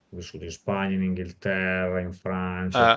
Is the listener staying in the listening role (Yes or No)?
Yes